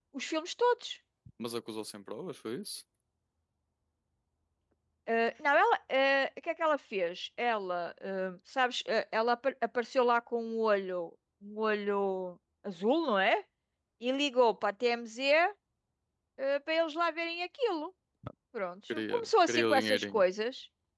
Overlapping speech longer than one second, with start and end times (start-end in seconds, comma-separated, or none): 18.9-20.2